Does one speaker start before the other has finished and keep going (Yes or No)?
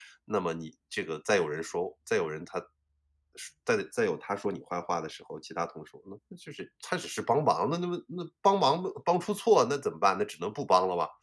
No